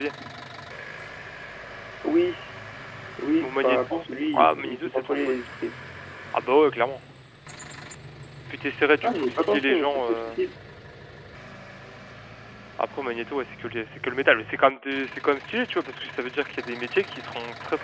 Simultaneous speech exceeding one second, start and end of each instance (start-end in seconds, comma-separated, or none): 3.4-5.4, 9.0-10.4